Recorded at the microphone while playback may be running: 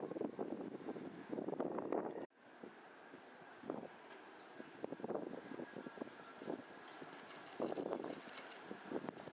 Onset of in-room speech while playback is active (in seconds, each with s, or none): none